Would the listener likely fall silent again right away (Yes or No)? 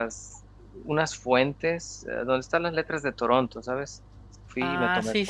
No